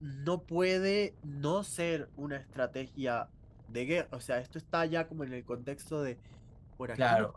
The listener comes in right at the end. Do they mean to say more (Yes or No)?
Yes